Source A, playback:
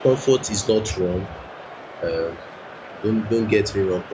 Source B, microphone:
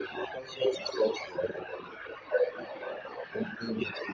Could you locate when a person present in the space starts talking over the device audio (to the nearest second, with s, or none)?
none